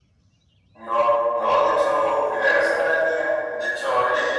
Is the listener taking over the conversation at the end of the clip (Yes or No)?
No